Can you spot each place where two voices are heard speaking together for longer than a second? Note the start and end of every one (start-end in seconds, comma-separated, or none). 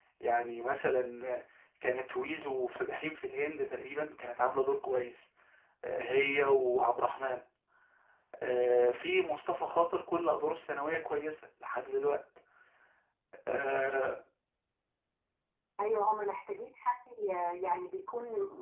none